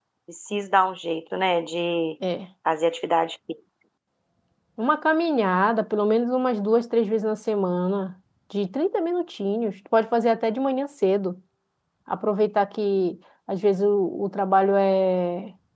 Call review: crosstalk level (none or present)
none